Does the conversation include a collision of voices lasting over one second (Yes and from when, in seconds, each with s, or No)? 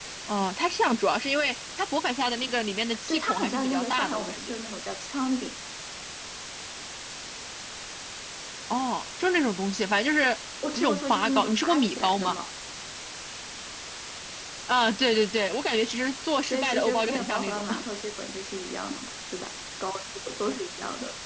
Yes, from 3.1 s